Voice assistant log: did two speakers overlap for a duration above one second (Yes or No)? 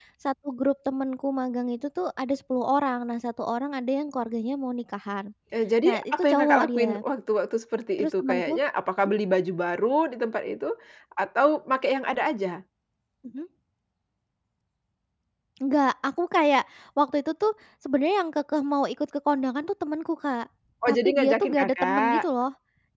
Yes